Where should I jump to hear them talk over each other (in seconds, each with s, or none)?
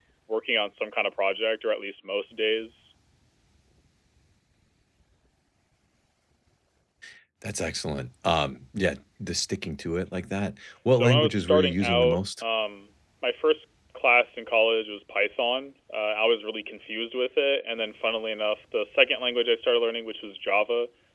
10.9 s